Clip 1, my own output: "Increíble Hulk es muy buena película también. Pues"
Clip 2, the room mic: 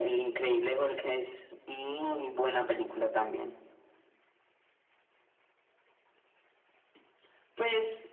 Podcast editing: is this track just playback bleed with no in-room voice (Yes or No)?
Yes